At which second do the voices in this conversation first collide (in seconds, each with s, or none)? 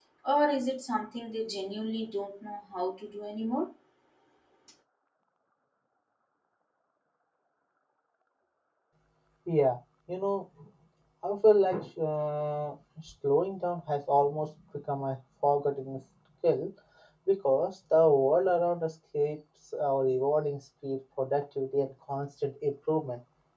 none